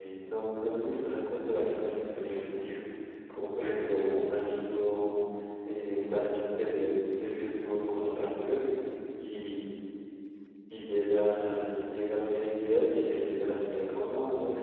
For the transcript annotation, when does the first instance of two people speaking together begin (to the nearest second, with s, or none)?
none